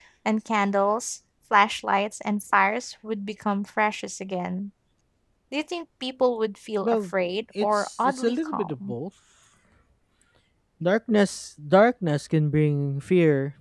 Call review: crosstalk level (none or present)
present